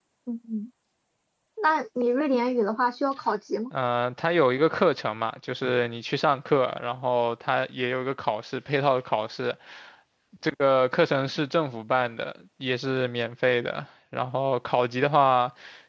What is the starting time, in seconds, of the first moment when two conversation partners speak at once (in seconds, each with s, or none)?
none